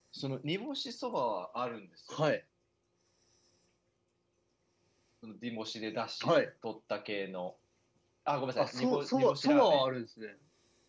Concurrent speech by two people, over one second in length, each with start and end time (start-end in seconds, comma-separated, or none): 8.6-9.8